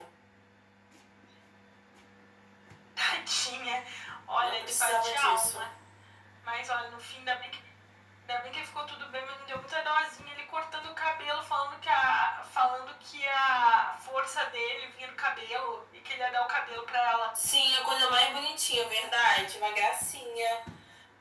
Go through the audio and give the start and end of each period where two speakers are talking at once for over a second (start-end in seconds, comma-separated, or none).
4.4-5.7